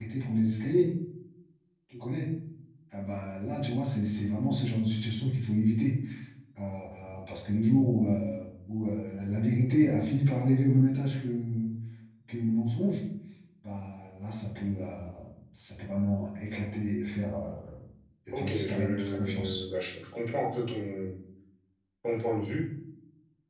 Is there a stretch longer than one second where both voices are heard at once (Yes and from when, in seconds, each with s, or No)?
Yes, from 18.3 s